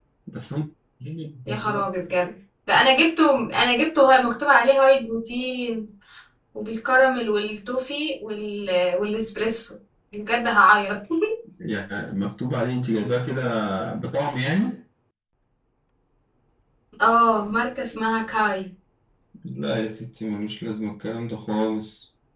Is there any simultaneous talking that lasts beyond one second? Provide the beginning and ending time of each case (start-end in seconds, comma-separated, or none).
none